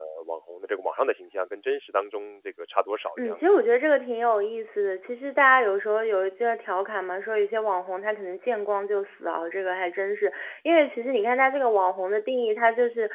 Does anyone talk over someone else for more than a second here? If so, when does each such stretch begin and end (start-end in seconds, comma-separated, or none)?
none